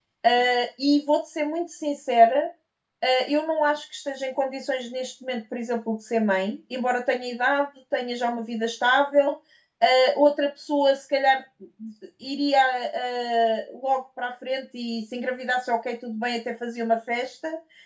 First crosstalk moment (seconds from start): none

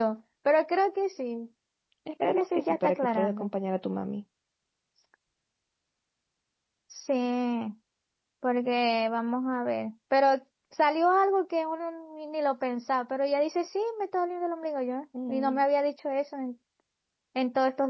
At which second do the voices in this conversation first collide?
2 s

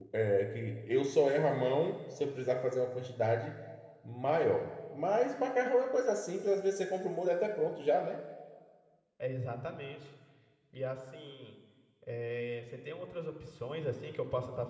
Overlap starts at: none

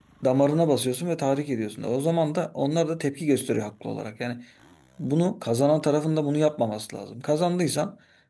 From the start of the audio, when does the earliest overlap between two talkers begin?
none

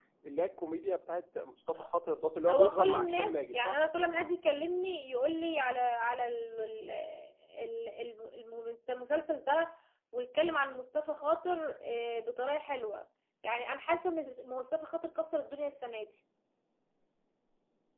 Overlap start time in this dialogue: 2 s

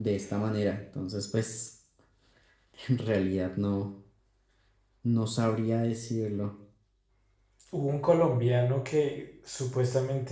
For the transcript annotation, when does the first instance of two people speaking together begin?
none

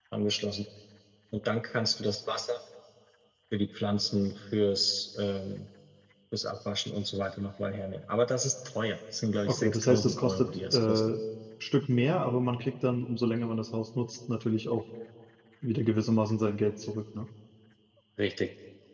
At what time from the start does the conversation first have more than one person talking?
9 s

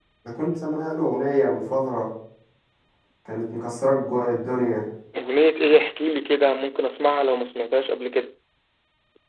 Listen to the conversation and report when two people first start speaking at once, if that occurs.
none

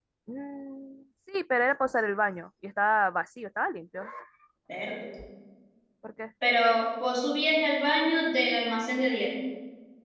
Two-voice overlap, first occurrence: none

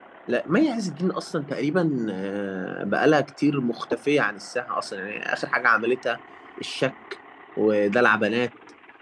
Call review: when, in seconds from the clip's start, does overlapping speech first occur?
none

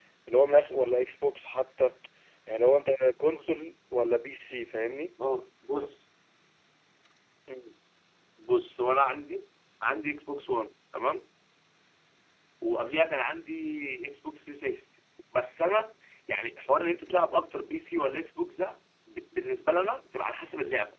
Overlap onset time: none

